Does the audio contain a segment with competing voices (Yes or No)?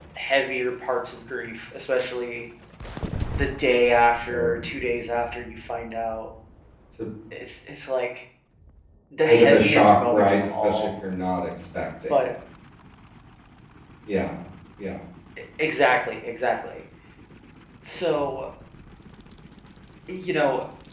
Yes